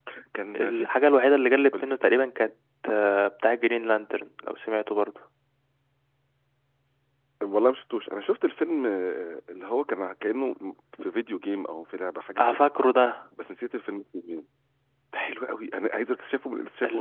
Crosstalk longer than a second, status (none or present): none